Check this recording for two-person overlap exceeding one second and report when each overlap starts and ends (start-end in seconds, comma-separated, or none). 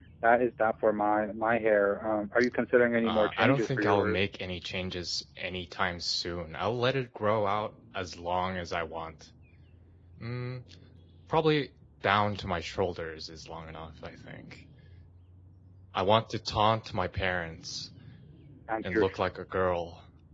3.0-4.3